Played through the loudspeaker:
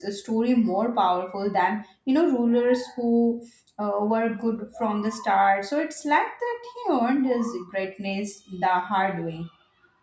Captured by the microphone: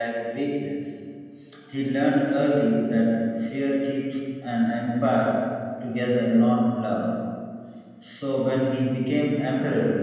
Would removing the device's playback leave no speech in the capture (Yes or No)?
No